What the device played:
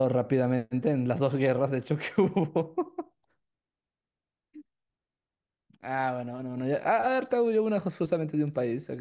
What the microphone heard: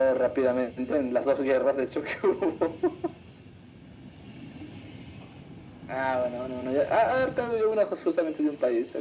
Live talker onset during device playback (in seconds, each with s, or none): none